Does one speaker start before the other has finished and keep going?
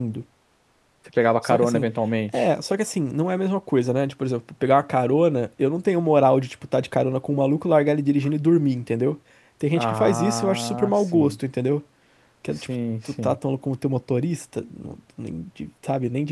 Yes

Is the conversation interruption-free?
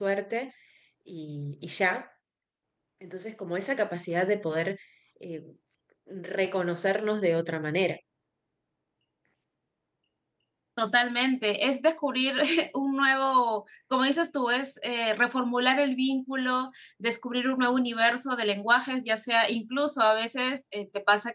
Yes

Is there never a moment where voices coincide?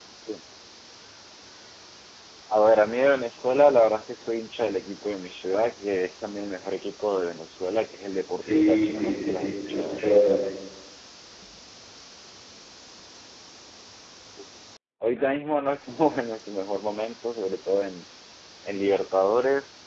No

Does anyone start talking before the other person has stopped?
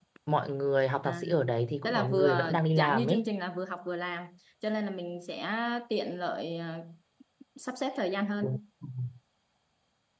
Yes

